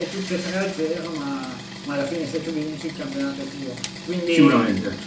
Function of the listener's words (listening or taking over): listening